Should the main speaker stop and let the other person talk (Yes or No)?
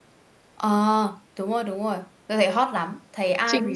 Yes